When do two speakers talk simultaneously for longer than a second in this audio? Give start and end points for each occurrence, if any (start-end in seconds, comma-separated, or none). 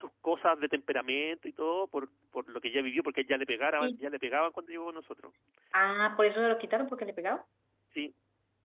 none